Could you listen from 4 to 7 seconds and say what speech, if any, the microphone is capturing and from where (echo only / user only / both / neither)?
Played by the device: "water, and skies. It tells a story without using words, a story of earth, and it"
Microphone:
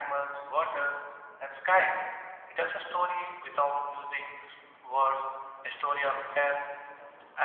echo only